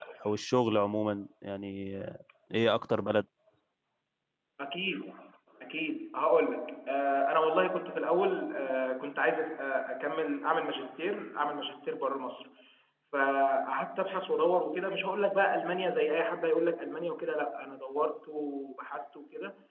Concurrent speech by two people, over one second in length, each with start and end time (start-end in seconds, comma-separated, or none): none